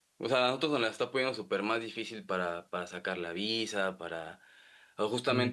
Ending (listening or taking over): listening